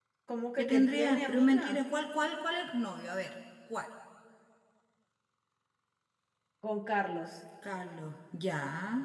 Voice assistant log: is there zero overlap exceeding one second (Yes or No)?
No